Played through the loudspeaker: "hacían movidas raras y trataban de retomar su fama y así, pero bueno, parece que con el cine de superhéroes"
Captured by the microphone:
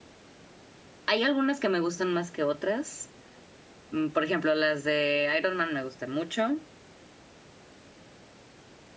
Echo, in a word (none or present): none